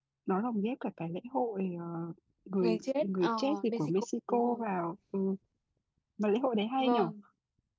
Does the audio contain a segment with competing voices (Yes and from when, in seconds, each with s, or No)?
Yes, from 2.6 s